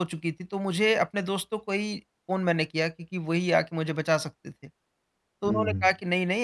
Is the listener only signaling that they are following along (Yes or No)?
Yes